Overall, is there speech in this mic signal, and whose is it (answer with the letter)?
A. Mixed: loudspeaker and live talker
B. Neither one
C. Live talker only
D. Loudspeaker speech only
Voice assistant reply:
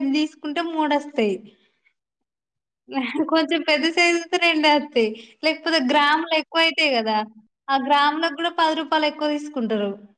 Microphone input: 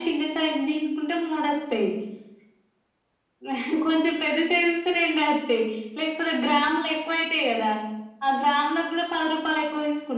D